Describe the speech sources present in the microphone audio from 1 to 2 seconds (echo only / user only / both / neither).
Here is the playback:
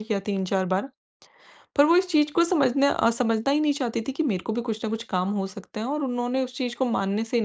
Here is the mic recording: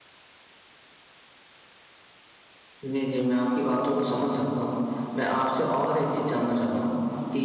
neither